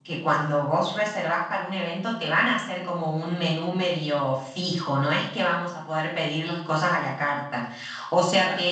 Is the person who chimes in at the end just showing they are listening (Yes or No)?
Yes